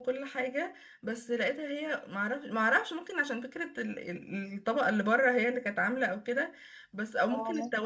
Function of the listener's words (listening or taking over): listening